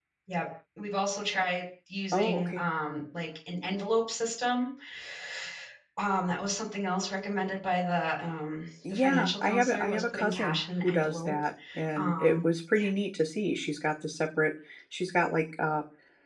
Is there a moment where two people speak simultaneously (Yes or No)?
Yes